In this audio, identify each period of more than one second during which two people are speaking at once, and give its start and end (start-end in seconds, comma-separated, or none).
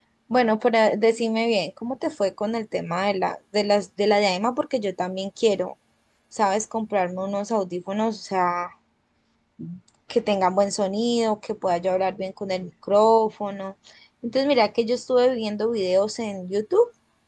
none